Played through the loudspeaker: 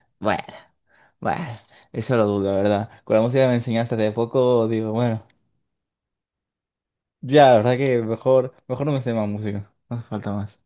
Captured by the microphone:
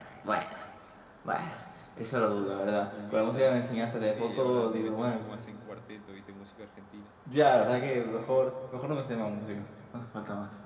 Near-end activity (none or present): present